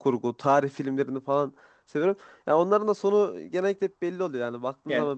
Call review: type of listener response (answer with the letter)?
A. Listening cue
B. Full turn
A